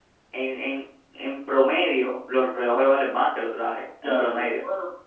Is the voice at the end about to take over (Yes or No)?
Yes